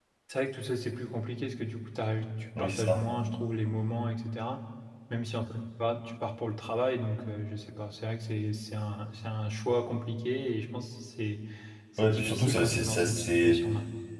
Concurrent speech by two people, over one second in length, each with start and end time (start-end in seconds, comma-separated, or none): 12.0-13.7